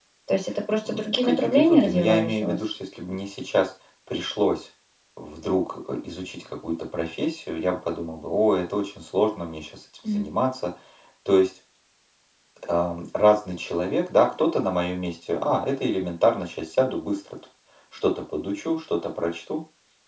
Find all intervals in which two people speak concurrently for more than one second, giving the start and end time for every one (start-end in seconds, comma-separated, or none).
0.8-2.6